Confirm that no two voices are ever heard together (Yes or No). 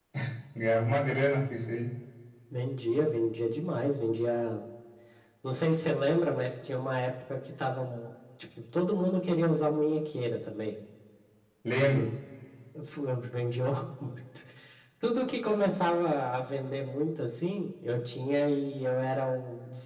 Yes